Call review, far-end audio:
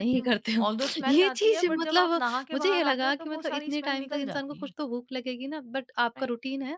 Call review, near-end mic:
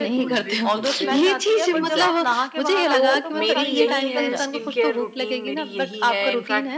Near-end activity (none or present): present